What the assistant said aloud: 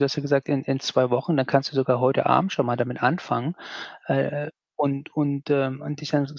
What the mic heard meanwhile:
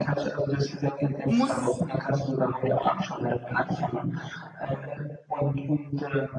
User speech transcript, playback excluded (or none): Muss,